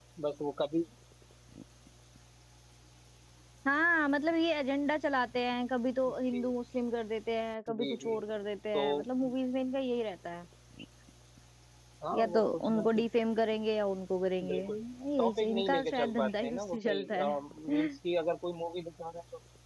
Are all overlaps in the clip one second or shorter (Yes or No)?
No